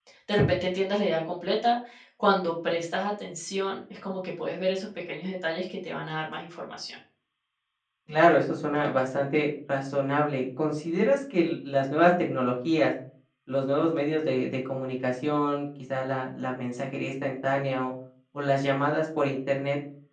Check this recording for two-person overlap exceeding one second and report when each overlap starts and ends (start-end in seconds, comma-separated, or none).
none